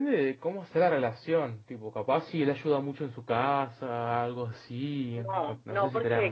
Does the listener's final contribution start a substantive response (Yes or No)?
Yes